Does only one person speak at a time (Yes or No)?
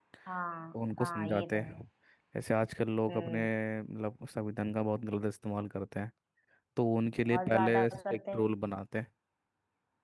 No